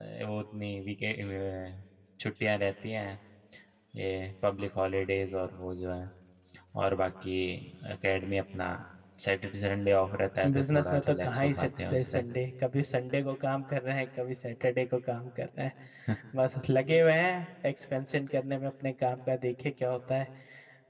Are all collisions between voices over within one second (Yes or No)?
No